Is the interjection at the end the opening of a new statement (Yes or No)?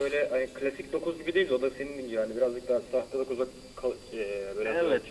Yes